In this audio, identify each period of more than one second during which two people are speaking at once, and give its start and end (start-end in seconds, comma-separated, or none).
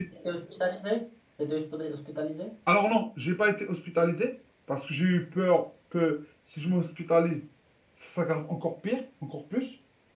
none